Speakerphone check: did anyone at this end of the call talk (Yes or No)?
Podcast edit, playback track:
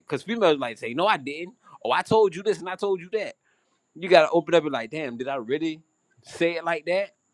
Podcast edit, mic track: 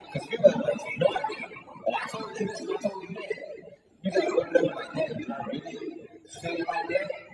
No